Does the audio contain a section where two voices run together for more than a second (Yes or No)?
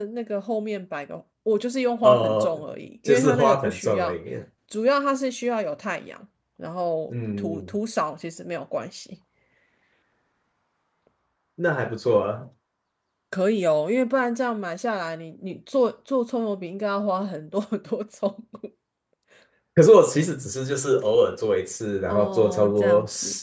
Yes